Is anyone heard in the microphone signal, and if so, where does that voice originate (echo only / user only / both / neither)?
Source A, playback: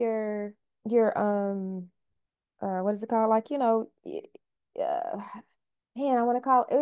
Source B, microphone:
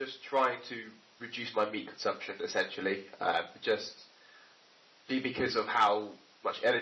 user only